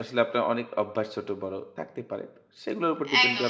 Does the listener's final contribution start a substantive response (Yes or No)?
Yes